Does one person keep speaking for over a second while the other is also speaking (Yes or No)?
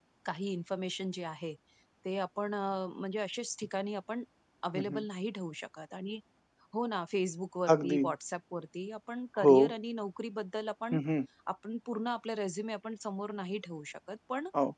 No